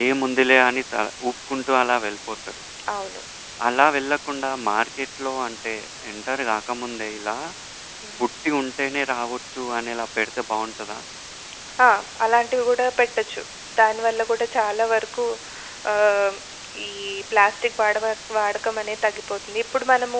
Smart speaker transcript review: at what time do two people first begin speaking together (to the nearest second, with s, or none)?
none